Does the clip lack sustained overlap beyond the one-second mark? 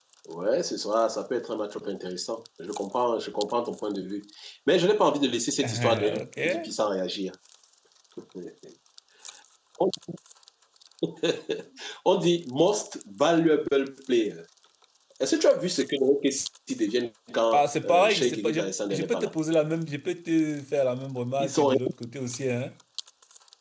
No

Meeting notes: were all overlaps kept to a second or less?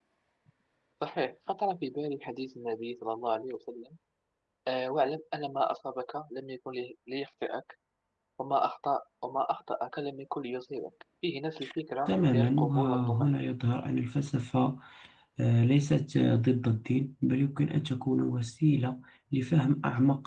No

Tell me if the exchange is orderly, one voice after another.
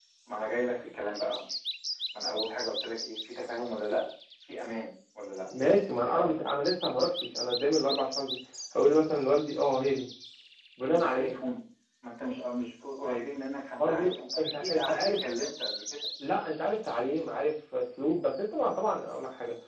No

